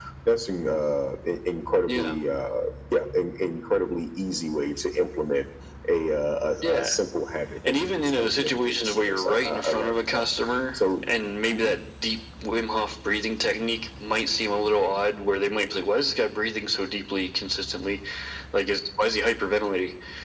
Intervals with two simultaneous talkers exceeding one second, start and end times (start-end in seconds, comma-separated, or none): 7.7-10.2